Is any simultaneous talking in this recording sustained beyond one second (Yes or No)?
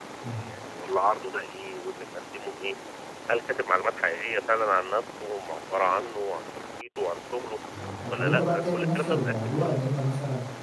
Yes